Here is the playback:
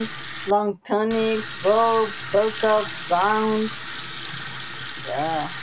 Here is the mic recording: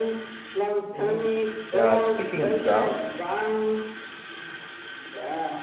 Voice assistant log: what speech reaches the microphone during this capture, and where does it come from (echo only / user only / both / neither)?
both